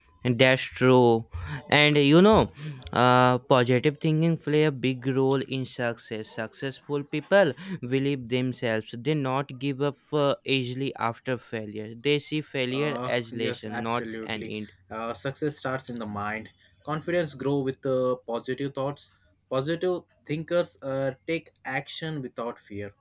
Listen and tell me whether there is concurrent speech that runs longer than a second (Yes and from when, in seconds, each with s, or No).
Yes, from 12.7 s